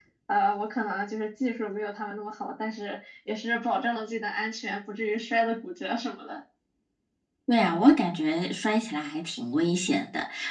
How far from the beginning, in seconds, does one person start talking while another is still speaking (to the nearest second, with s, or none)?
none